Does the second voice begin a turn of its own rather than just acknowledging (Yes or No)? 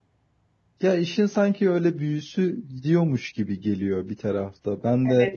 Yes